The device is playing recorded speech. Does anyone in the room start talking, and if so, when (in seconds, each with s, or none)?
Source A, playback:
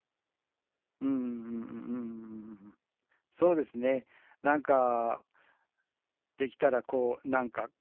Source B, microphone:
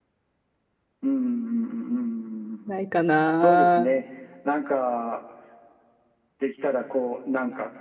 2.7 s